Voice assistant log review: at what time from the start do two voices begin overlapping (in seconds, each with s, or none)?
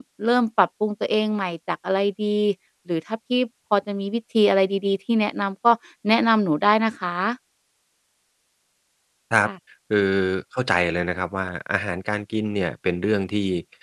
none